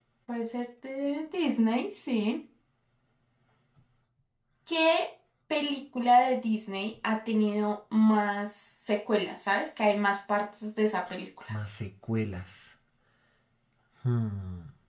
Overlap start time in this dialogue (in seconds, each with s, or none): none